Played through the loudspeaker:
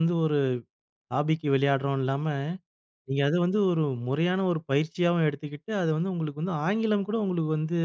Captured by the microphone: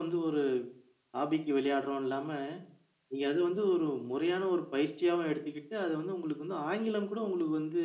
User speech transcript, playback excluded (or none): none